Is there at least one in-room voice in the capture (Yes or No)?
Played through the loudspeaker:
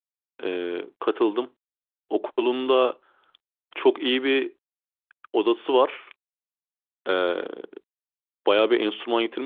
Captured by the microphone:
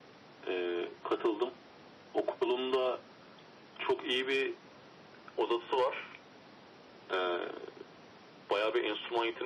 No